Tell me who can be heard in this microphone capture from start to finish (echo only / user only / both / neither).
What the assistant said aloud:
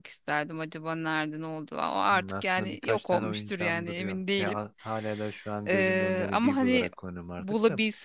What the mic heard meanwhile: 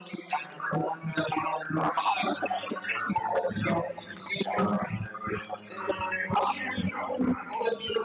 echo only